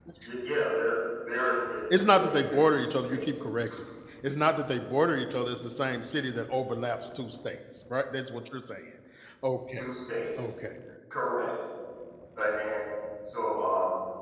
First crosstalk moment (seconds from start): 2 s

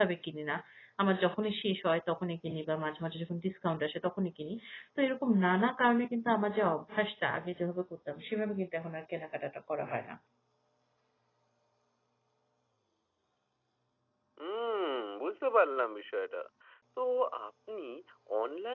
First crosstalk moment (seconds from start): none

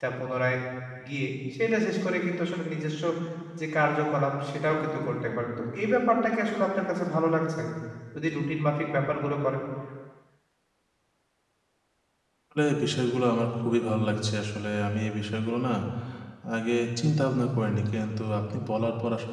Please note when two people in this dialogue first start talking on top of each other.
none

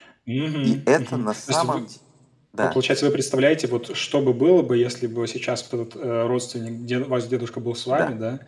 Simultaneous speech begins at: 1 s

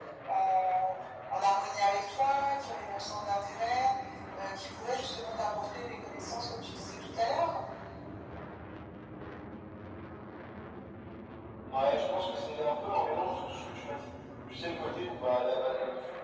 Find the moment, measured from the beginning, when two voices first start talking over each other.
none

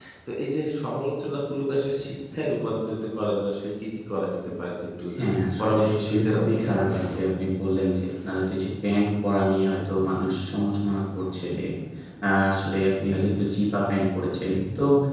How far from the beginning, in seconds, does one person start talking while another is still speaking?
6 s

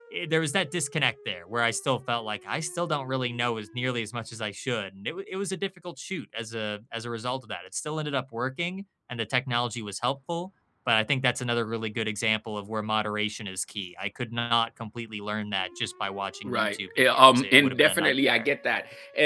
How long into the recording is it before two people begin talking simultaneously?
16 s

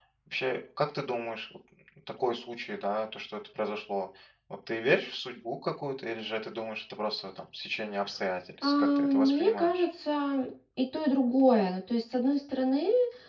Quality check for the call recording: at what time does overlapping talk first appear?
9 s

